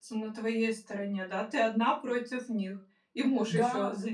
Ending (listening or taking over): taking over